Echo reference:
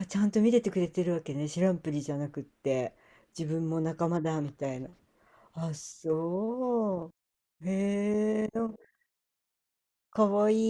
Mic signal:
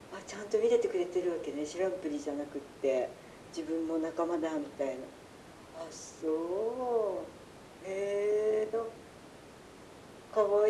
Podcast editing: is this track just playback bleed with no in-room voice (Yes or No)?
Yes